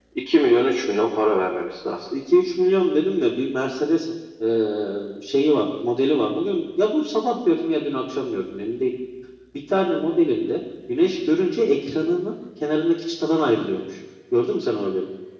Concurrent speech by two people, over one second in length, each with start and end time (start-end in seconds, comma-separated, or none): none